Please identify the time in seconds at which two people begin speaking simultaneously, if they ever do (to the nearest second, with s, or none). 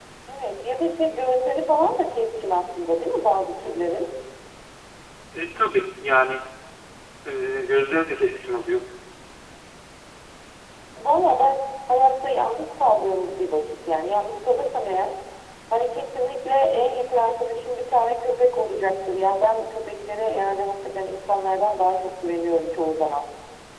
none